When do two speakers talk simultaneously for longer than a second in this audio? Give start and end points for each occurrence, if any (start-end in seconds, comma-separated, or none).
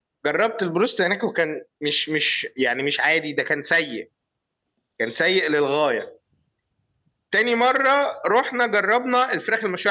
none